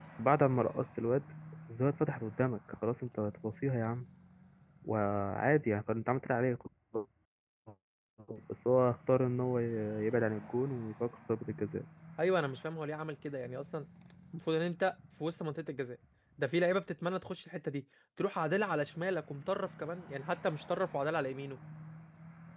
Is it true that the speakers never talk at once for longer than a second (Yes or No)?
Yes